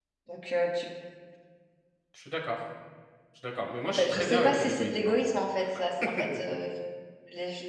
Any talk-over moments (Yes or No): Yes